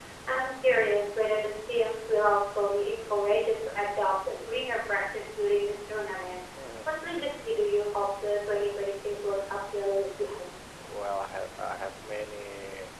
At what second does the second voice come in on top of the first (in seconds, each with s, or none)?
none